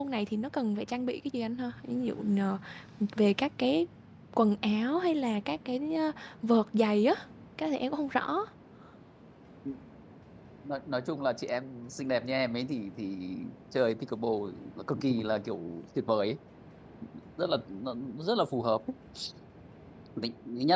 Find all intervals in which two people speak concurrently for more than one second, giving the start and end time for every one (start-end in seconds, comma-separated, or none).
none